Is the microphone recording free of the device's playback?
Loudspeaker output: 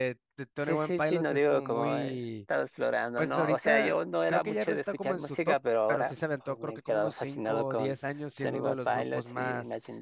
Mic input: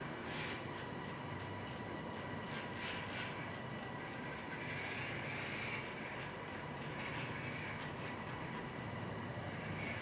Yes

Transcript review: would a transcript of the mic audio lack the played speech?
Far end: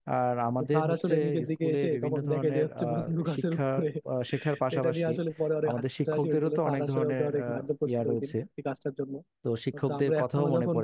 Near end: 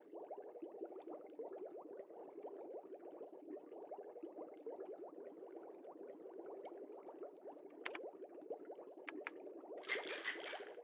Yes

